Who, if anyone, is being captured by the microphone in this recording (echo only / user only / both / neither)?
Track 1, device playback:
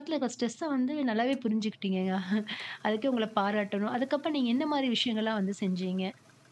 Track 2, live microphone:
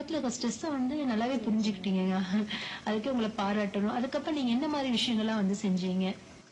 both